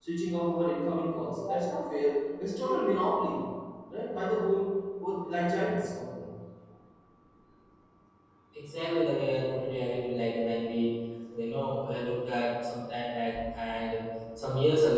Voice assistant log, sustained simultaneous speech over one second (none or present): none